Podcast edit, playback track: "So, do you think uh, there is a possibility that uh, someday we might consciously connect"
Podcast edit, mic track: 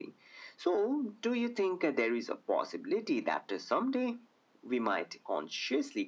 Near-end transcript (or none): none